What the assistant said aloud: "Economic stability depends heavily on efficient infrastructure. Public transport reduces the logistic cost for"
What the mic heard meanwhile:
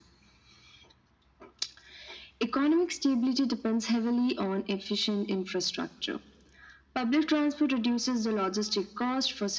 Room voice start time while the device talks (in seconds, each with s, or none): none